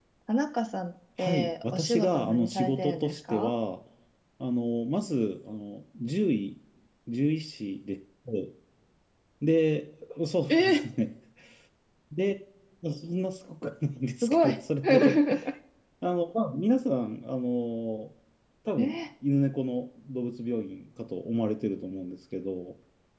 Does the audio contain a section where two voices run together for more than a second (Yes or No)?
Yes